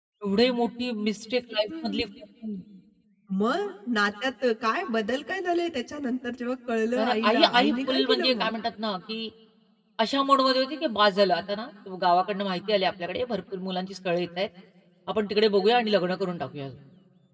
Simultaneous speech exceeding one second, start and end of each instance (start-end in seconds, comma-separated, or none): 7.0-8.5